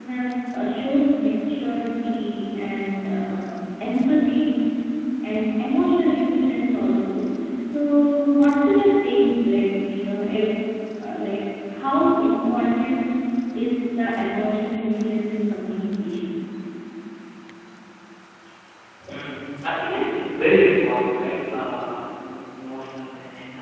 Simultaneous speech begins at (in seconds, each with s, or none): none